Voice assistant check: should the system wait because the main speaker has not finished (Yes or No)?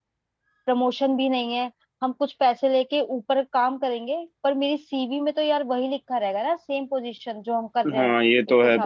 No